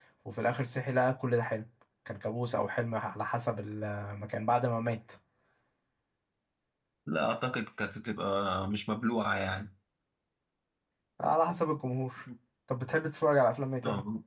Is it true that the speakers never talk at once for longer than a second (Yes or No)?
Yes